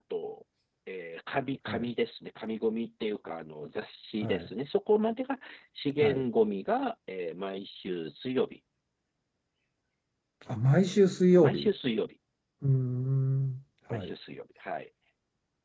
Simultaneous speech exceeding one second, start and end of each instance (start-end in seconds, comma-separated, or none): none